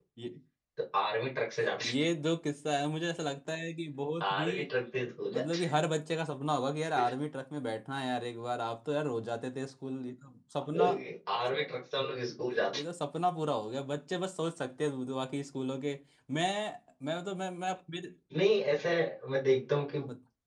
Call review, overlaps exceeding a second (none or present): none